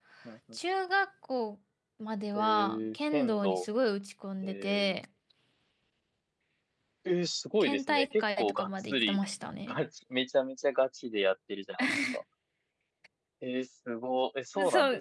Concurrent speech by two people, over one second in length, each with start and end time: 2.4-3.6, 7.6-9.2

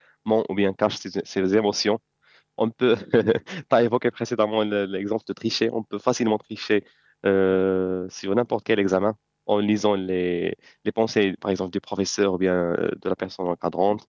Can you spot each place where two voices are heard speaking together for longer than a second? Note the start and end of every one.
none

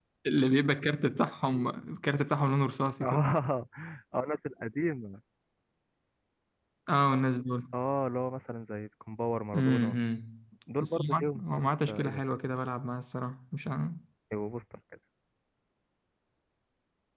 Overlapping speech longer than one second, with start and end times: 10.8-12.2

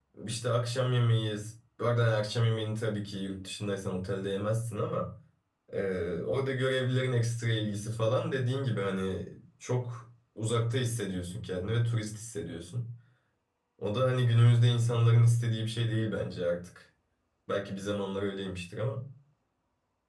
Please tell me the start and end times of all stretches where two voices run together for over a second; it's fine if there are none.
none

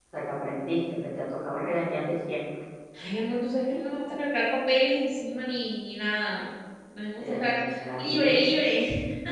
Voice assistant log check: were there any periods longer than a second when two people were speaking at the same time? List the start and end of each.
7.2-8.4

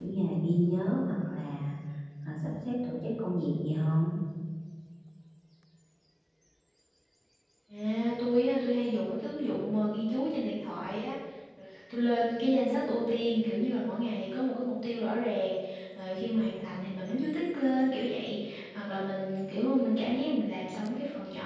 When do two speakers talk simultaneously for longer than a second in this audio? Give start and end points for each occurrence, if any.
none

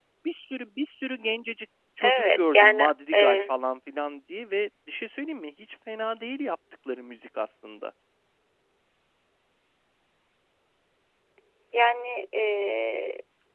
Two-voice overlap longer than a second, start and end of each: 2.0-3.5

